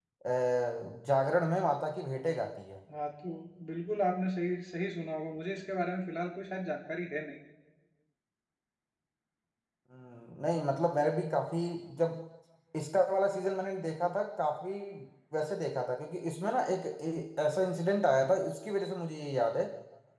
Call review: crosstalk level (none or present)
none